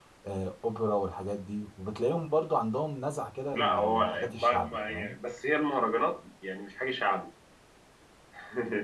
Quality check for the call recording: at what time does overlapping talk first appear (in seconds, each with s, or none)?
3.5 s